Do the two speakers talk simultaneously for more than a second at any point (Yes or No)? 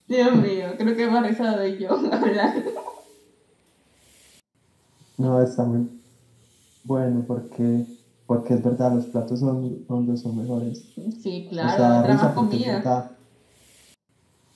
Yes